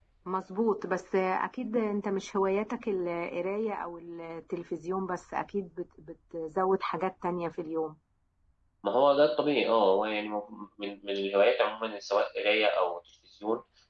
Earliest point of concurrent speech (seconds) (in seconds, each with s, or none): none